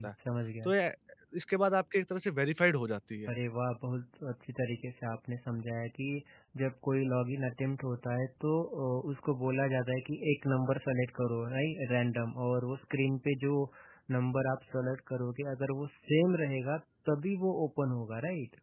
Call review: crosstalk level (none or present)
none